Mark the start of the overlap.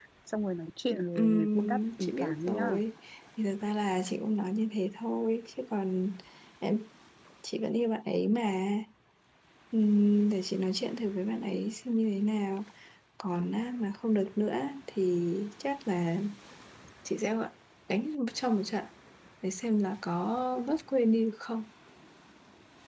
1 s

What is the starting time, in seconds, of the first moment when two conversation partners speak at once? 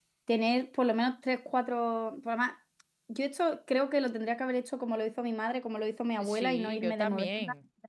6 s

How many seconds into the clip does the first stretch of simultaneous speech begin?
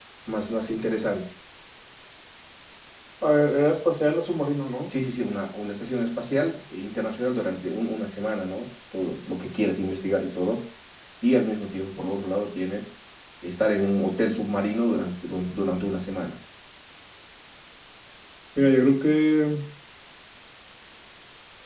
none

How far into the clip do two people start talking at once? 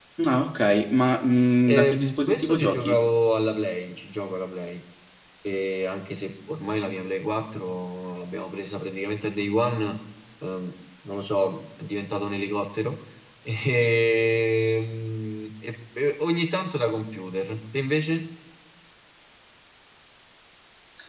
2 s

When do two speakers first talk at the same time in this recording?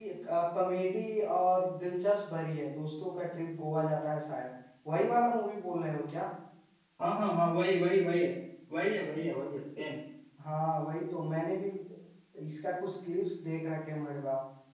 none

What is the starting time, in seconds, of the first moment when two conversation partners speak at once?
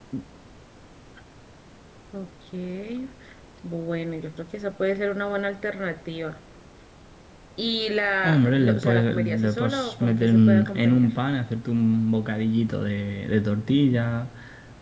8 s

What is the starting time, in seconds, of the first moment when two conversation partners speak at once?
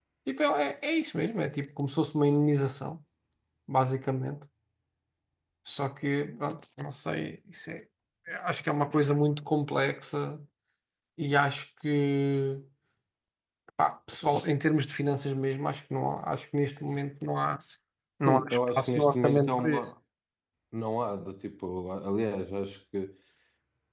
18 s

